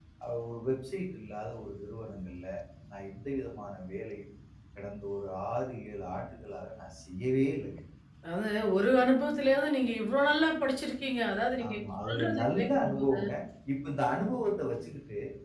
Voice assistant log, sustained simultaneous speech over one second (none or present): present